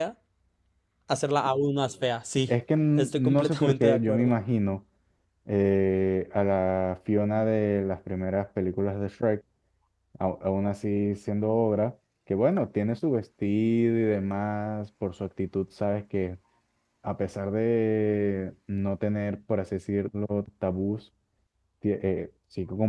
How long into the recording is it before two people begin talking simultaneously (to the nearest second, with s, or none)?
3 s